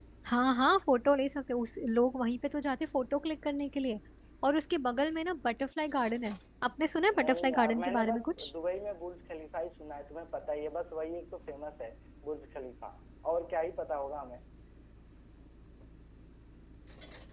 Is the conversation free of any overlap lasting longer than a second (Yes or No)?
No